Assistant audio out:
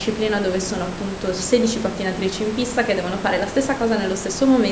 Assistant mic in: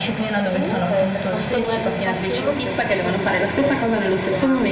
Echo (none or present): present